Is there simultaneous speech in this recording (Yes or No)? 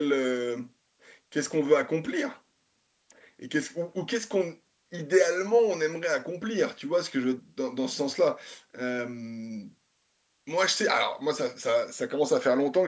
No